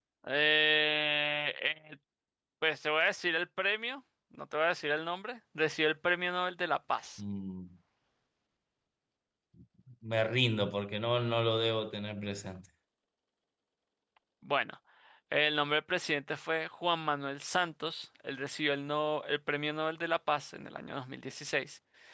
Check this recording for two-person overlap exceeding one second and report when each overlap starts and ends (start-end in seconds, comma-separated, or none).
none